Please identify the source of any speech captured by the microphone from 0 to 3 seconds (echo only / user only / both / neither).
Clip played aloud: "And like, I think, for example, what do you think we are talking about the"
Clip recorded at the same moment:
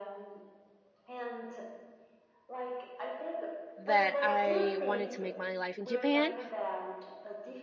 echo only